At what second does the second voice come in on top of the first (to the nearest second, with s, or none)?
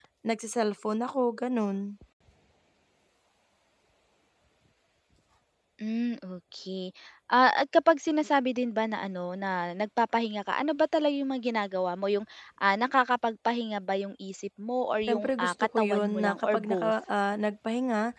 15 s